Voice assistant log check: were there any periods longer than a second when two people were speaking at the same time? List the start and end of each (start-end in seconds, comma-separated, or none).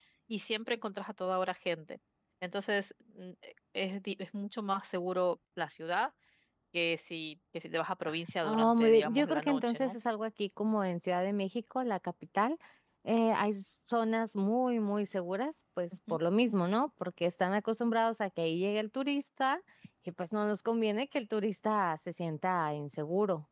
8.4-10.0